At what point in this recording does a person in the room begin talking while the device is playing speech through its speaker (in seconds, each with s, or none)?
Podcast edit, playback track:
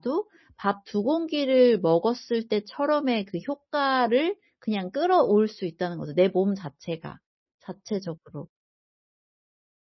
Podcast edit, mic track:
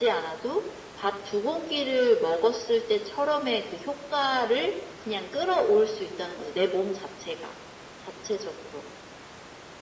none